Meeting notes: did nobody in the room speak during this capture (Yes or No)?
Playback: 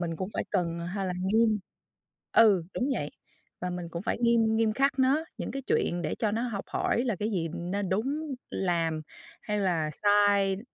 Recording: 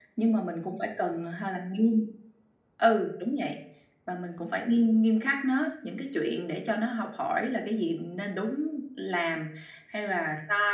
Yes